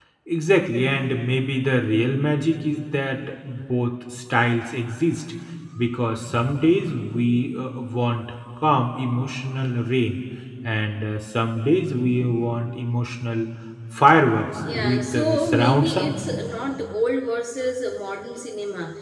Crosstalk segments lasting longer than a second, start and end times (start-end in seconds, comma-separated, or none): 14.7-16.2